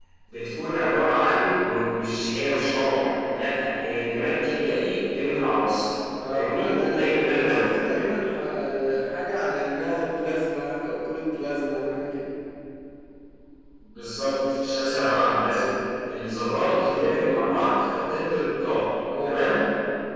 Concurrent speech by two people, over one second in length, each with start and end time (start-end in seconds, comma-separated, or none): 6.3-7.7